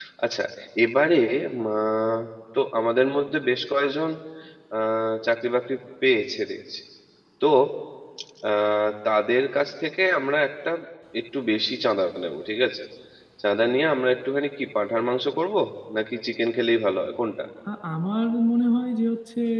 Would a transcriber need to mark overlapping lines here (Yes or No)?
No